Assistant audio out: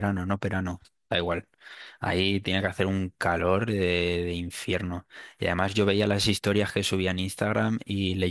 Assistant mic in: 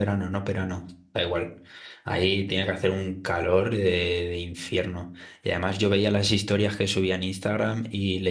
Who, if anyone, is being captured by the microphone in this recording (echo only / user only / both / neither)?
echo only